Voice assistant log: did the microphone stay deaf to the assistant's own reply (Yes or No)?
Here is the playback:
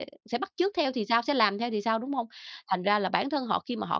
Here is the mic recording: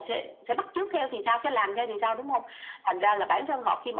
No